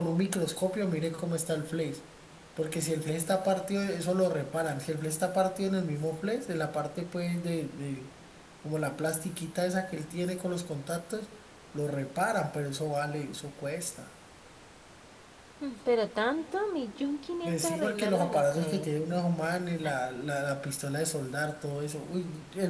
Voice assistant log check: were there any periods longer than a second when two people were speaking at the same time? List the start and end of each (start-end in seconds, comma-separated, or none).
17.4-18.9